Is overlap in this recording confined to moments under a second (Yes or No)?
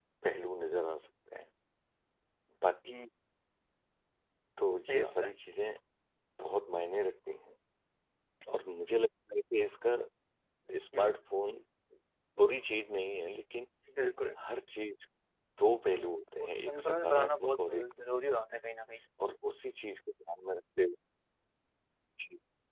No